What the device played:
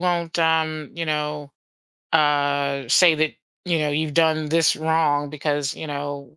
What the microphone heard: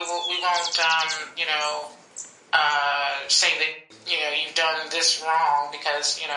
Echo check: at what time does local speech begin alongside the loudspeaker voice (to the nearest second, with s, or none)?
none